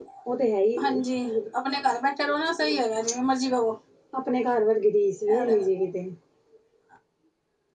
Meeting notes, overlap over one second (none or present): none